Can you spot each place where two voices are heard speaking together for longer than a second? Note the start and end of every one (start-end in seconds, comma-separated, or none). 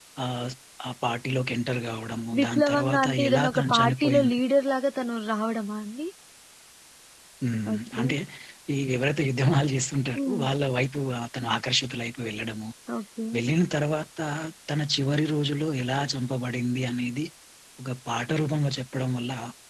2.4-4.4